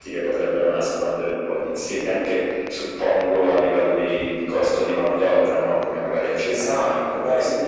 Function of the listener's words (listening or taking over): taking over